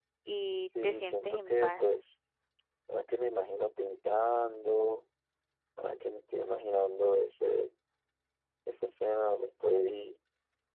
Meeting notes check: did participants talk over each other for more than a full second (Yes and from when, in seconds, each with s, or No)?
Yes, from 0.6 s